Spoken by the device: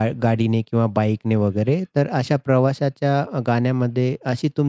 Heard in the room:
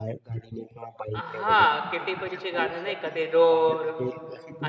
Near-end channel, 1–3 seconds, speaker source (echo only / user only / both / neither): both